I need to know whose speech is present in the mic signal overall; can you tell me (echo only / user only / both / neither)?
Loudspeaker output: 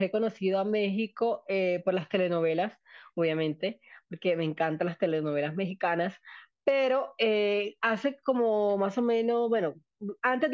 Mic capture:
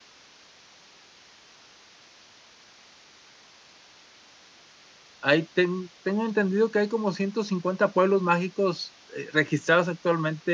user only